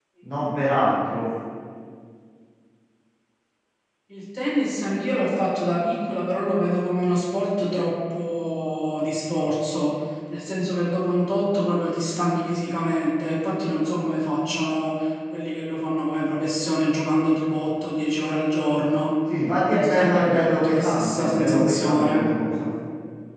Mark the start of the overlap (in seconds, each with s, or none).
19.7 s